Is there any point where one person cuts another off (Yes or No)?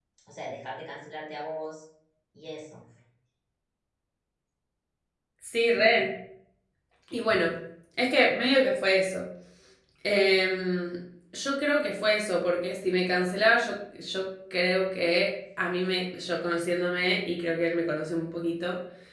No